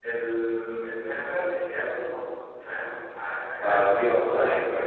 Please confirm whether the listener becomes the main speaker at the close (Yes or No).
Yes